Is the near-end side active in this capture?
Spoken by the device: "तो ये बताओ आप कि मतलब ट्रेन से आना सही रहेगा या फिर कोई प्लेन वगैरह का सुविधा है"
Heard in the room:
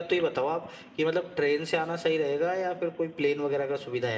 No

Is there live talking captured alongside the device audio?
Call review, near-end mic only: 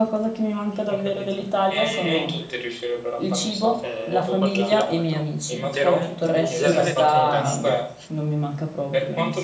Yes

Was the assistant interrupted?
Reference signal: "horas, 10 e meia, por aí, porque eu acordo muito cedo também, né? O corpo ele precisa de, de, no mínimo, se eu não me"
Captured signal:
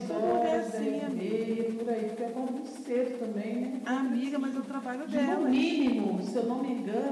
Yes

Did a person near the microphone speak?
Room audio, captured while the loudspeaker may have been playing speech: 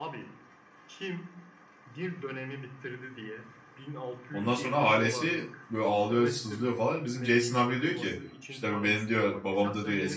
Yes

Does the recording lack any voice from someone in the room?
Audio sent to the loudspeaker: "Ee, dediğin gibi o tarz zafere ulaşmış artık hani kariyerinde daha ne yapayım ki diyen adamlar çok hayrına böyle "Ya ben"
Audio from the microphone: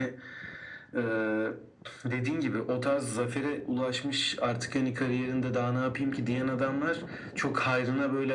Yes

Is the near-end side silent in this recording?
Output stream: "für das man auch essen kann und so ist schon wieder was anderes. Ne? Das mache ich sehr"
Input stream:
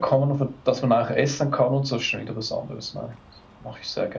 Yes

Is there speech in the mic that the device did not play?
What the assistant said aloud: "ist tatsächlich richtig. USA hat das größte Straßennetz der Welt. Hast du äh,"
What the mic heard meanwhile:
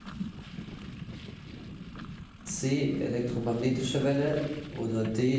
Yes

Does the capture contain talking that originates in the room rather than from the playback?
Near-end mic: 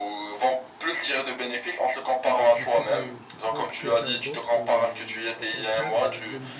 Yes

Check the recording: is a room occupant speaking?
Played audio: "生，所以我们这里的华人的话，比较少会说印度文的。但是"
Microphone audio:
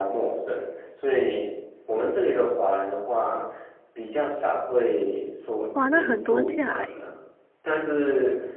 Yes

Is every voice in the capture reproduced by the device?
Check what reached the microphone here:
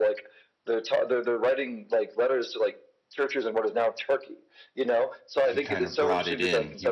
No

